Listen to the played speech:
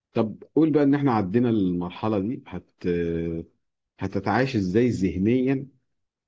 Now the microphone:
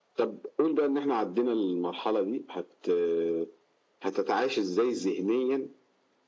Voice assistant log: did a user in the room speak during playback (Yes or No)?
No